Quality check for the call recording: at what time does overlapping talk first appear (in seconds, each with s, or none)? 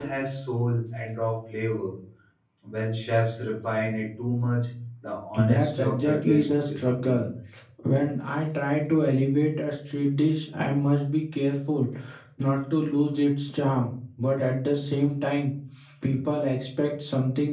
5.3 s